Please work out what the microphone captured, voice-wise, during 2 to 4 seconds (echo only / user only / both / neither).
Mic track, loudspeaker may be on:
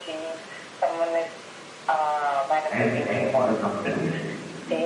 both